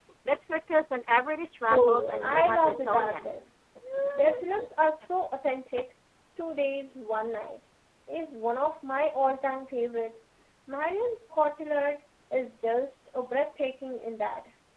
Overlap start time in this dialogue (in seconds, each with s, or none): 1.7 s